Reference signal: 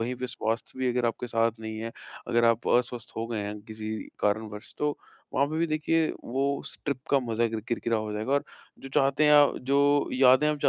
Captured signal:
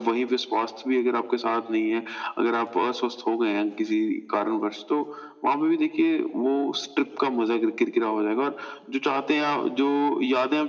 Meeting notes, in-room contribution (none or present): none